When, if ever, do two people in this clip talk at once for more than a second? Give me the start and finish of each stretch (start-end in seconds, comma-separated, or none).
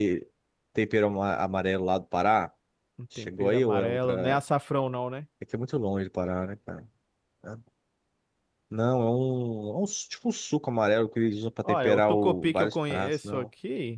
3.2-4.4, 11.6-13.5